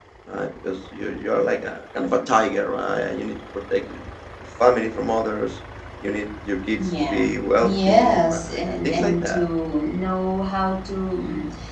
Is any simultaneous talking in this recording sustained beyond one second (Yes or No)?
Yes